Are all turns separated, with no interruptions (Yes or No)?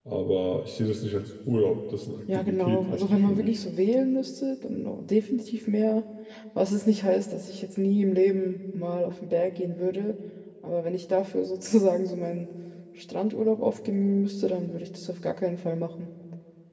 No